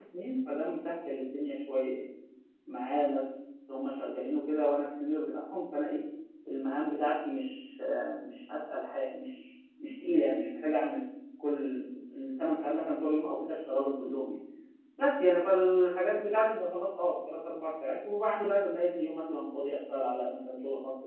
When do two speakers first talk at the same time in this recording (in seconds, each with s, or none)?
none